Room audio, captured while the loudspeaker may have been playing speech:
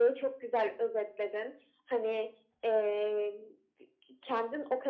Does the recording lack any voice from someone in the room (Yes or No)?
Yes